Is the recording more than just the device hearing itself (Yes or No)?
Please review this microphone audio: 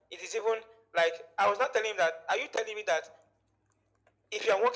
No